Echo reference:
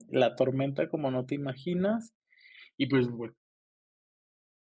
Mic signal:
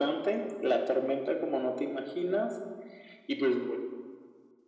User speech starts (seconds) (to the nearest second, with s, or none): none